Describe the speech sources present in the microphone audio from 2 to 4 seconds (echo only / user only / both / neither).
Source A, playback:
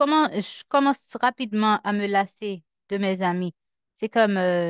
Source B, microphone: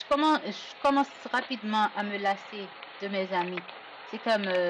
echo only